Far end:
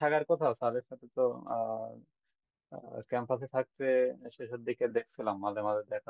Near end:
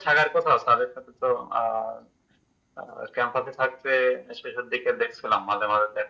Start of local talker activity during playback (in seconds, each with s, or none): none